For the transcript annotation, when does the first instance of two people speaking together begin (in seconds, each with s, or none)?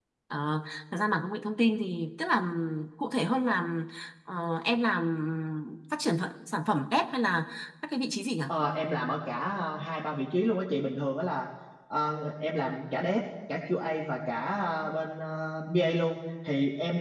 none